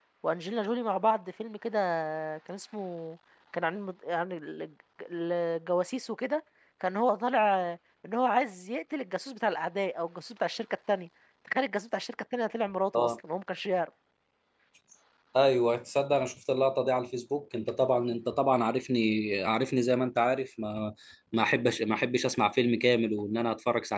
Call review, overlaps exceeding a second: none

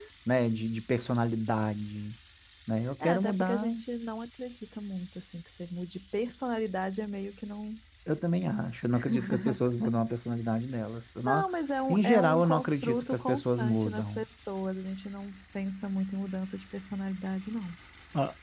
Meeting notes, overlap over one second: present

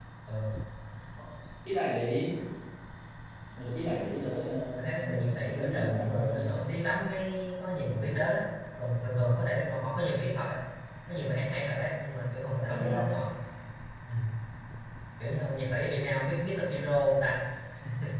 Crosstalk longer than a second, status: present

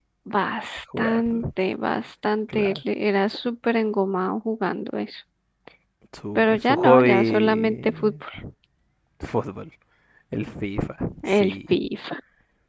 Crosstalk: present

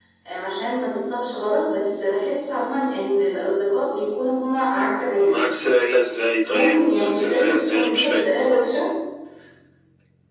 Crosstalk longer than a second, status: present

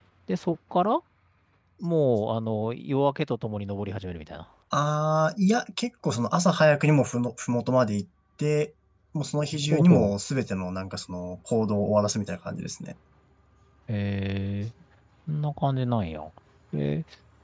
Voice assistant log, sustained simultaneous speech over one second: none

